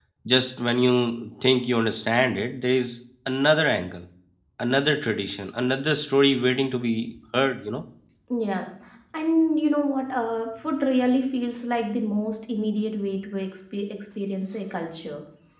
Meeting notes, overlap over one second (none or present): none